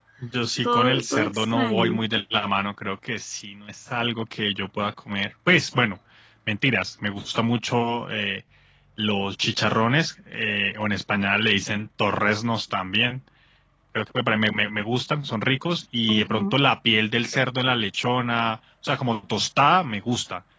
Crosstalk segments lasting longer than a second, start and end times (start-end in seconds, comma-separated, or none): 0.6-2.0